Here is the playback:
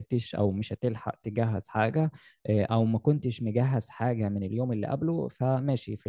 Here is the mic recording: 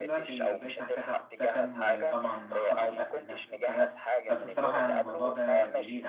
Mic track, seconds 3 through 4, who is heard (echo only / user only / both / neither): both